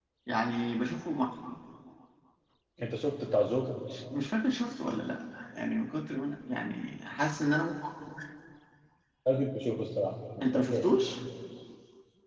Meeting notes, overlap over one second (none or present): none